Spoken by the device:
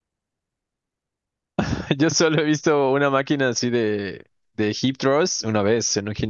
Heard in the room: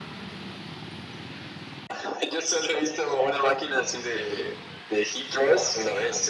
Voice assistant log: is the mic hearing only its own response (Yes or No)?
Yes